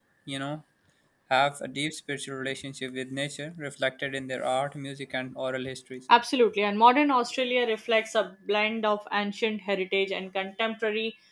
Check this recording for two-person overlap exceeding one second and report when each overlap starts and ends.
none

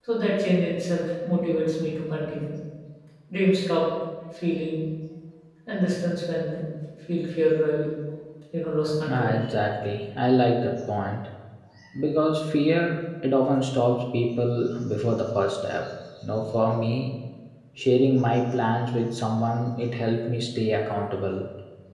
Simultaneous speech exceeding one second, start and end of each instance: none

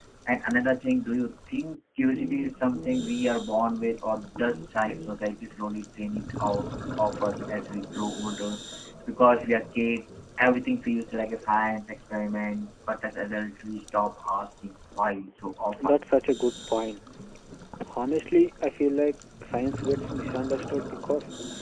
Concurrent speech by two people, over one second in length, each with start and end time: none

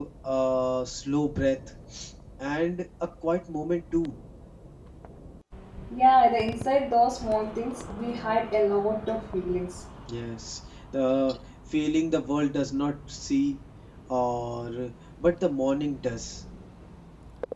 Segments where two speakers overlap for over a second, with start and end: none

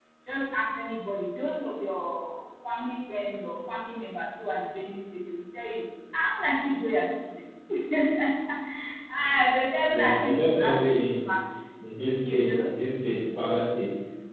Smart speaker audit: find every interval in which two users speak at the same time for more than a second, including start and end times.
9.9-11.3

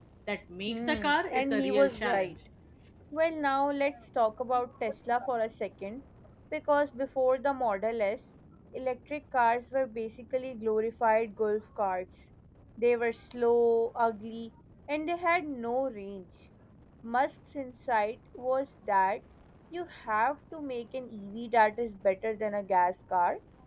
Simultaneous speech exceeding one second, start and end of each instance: 0.6-2.3

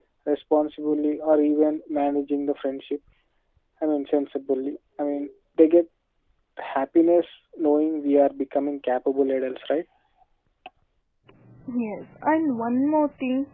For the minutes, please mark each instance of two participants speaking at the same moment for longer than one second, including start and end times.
none

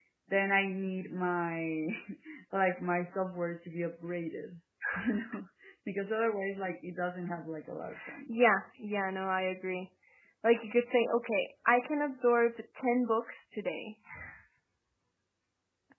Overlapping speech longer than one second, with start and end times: none

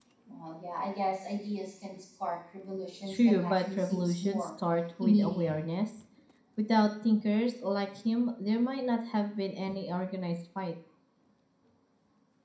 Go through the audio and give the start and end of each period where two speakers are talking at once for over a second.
3.1-4.5

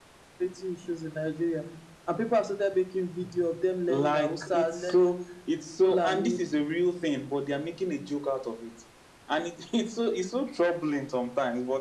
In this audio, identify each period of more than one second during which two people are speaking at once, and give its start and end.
3.9-5.1

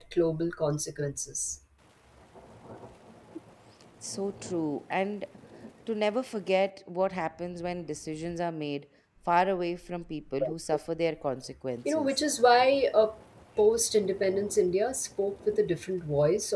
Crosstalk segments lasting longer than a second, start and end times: none

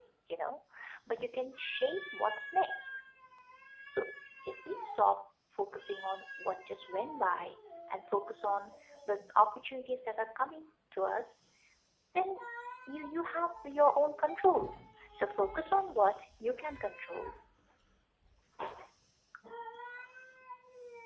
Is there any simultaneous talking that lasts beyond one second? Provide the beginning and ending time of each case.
none

